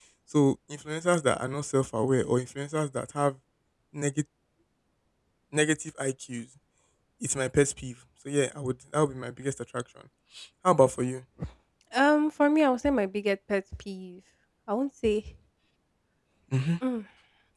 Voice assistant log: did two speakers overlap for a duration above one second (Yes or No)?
No